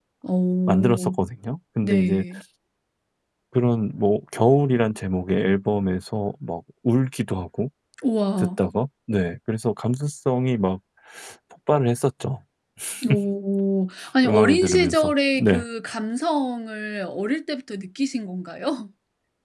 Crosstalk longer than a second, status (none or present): present